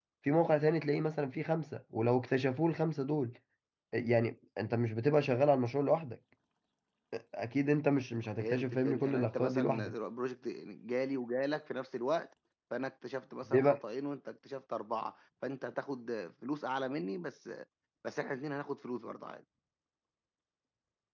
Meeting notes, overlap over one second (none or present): present